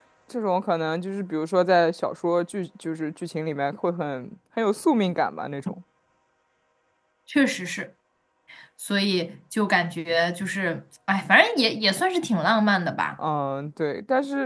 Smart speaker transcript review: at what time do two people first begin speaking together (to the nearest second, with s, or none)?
none